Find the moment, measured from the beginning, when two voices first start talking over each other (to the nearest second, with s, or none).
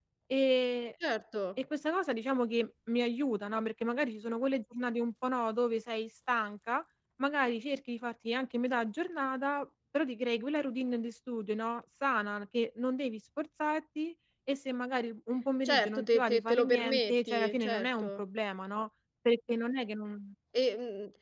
16 s